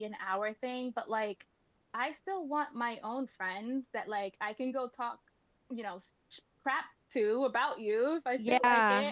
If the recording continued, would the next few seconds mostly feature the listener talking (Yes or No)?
No